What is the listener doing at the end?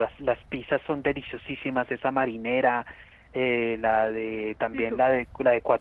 listening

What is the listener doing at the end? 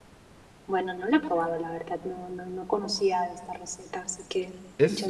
taking over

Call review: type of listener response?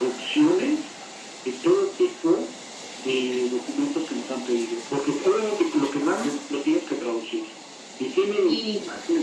listening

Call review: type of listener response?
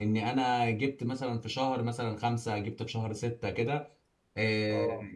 listening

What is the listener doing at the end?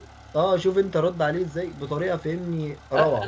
taking over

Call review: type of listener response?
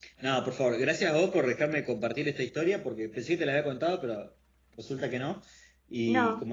listening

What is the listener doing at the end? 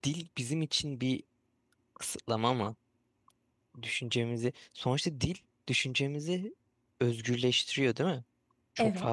listening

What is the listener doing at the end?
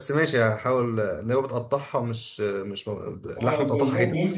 taking over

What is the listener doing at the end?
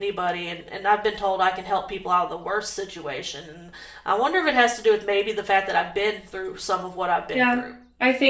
taking over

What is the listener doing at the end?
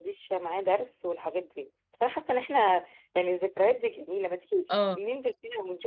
listening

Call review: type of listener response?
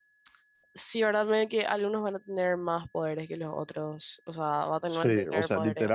taking over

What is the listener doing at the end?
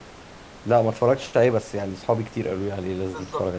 taking over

